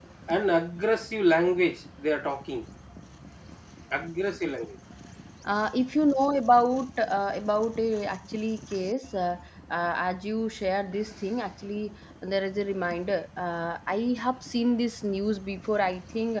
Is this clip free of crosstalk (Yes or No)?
Yes